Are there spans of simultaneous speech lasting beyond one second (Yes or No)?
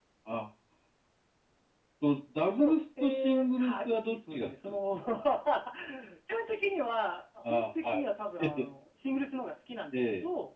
Yes